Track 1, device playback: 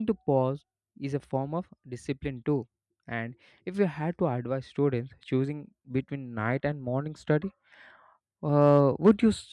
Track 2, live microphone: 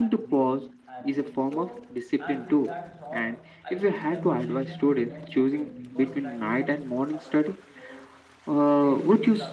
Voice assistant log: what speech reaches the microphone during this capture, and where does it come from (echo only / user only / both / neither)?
both